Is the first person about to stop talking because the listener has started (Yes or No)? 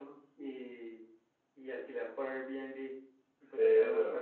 No